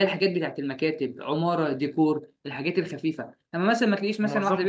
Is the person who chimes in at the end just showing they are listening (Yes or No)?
Yes